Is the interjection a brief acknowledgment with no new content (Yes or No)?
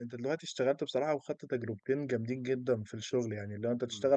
Yes